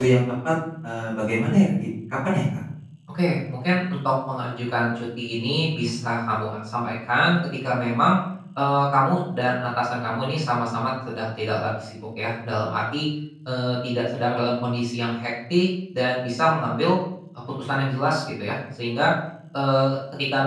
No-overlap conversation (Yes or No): Yes